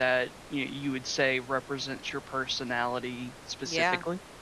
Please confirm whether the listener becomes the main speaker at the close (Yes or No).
Yes